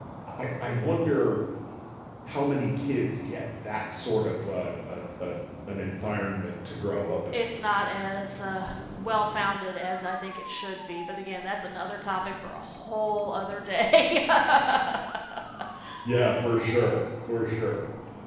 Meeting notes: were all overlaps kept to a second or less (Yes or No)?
Yes